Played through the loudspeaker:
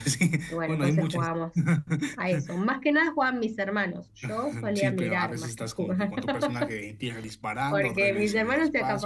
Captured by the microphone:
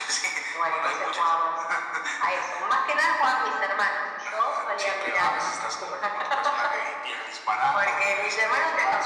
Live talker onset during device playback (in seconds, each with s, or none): none